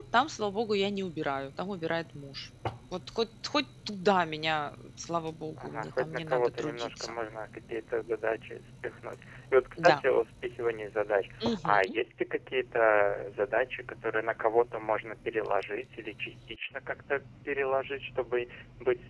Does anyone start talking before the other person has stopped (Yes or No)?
Yes